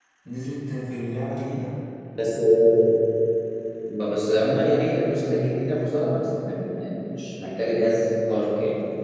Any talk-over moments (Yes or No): No